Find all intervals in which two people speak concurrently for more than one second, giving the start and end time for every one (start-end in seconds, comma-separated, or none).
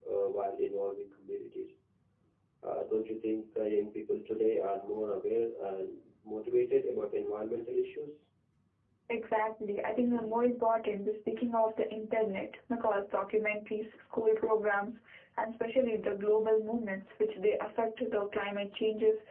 none